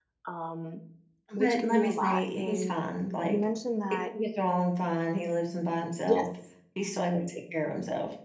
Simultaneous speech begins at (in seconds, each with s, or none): 1.4 s